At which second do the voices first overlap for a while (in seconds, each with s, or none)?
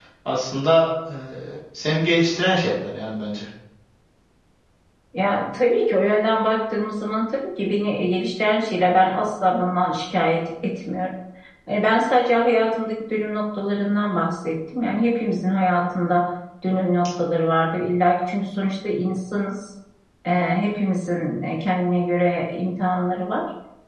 none